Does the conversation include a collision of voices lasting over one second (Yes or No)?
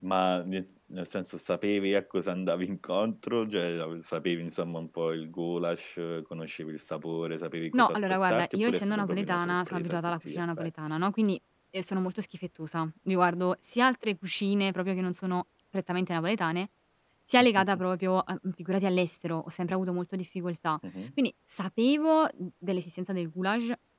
Yes